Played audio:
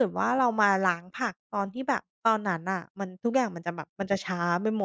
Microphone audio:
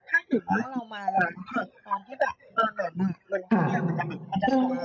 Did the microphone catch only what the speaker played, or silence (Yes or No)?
No